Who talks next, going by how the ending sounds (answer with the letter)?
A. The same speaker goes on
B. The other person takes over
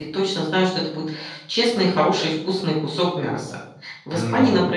A